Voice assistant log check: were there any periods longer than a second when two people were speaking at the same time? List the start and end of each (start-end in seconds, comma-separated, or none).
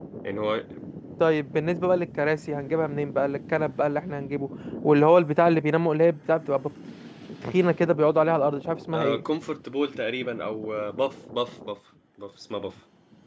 none